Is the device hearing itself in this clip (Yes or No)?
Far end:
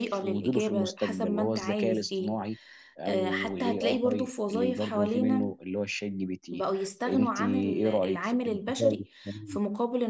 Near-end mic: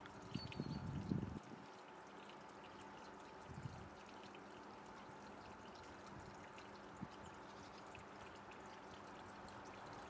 No